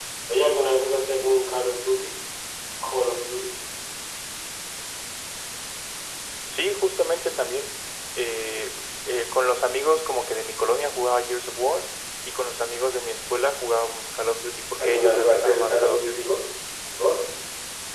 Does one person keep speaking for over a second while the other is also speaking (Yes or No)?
Yes